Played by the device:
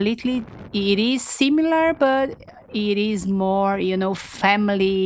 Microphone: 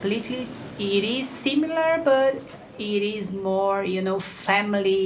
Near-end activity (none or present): none